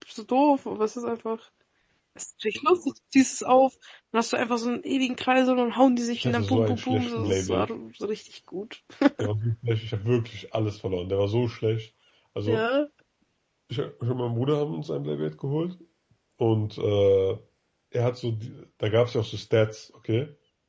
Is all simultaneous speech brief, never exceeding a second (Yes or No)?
No